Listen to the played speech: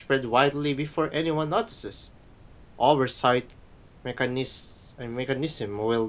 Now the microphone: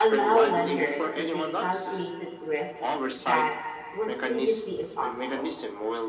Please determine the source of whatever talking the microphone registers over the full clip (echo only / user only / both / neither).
both